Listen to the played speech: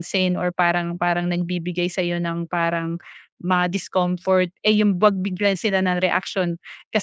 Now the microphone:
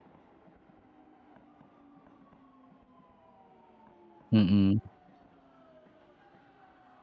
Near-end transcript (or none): Mm,